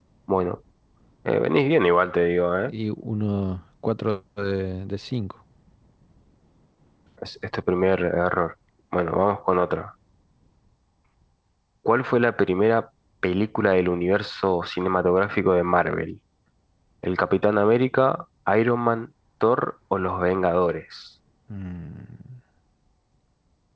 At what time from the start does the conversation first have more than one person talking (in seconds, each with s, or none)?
none